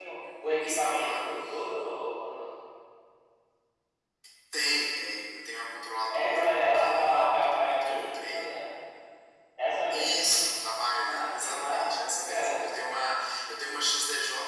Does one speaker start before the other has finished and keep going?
Yes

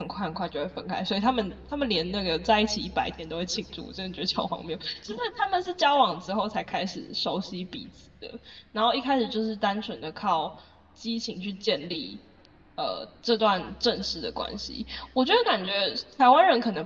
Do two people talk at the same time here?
No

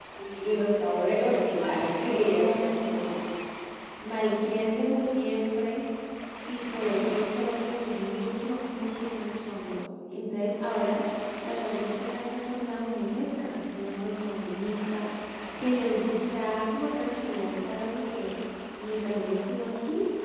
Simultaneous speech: Yes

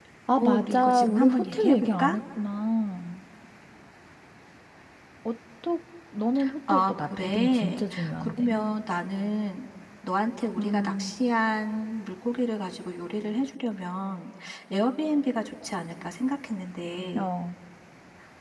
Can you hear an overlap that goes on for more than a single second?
Yes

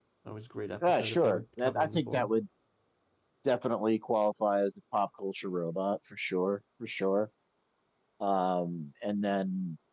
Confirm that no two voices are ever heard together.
No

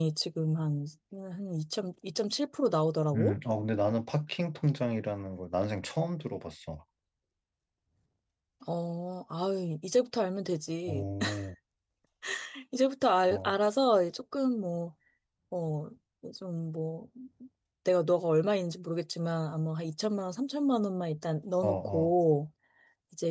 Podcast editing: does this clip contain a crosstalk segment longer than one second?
No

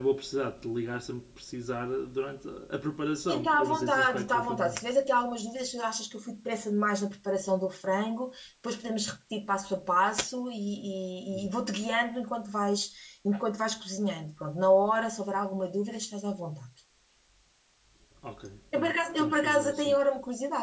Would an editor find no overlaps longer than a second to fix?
No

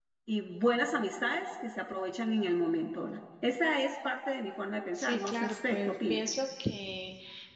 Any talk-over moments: Yes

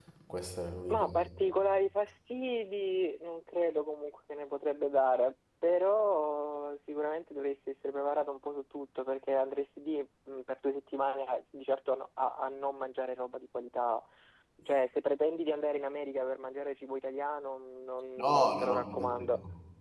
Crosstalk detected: Yes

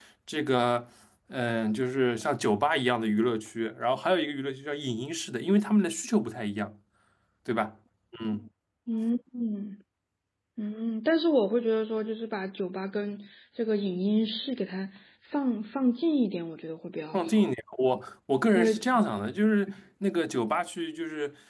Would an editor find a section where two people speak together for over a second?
No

